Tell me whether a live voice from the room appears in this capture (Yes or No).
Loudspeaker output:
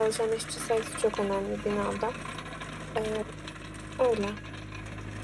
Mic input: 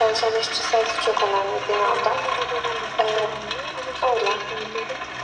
Yes